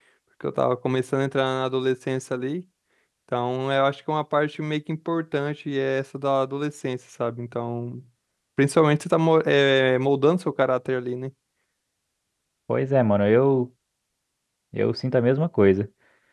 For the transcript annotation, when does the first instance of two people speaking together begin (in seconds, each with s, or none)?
none